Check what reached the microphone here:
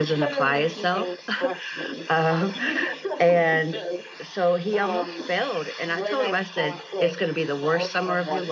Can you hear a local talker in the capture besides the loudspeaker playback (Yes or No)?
Yes